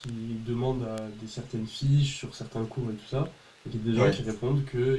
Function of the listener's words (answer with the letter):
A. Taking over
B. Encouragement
B